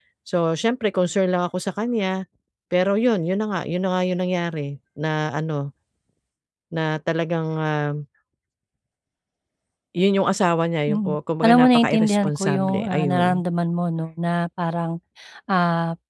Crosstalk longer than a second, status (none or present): present